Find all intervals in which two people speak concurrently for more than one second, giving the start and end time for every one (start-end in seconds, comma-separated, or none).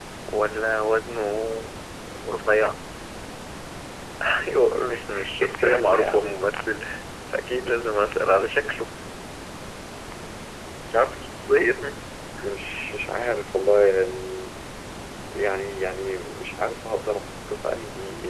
4.9-6.4